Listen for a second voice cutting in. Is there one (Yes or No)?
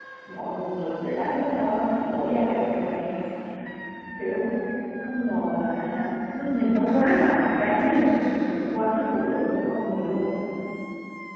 No